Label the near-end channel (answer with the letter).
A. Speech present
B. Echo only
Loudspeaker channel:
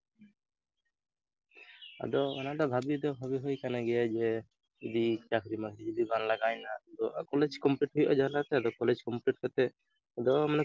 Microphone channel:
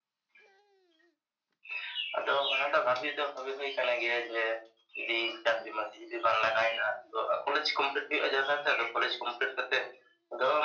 B